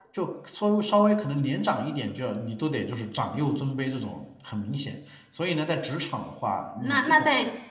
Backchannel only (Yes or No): No